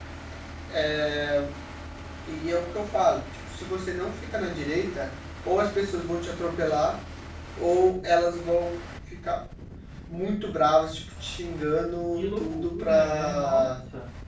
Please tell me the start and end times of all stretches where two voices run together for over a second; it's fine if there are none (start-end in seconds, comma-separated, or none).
12.1-13.7